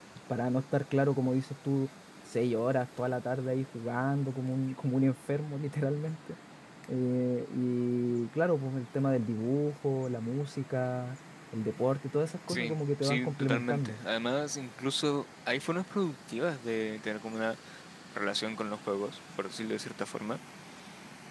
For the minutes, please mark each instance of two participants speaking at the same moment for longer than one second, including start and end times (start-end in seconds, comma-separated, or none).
12.5-14.0